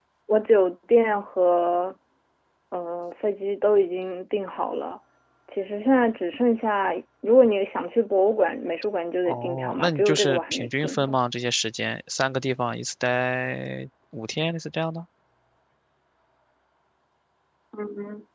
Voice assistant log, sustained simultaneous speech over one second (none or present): present